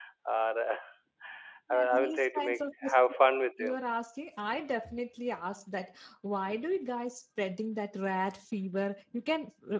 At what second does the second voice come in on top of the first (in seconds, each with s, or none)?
1.7 s